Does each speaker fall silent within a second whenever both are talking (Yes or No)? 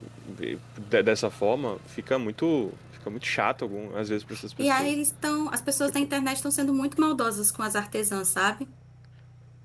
Yes